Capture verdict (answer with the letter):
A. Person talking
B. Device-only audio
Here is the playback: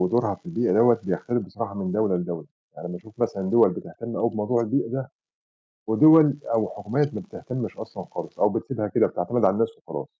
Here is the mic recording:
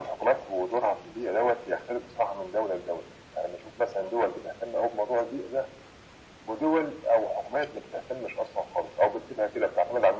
B